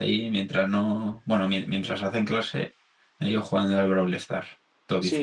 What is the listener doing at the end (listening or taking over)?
taking over